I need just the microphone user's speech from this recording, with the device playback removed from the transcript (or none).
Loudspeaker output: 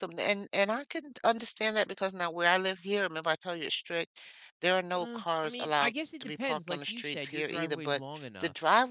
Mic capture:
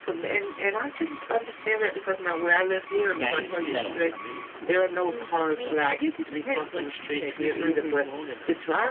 Yeah, I used to do that all the time, it was cool.